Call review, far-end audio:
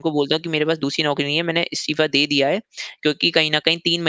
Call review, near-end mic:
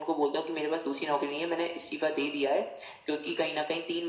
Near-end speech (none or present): none